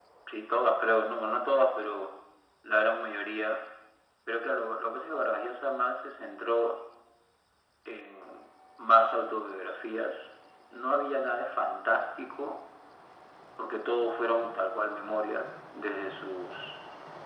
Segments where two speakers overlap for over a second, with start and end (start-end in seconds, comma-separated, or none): none